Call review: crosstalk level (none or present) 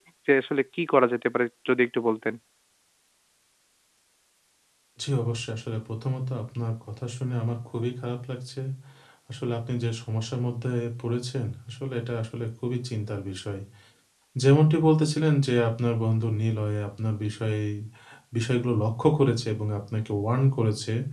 none